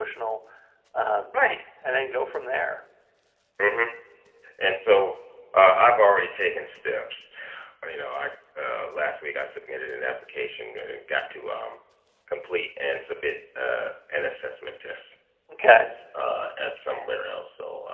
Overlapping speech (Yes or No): No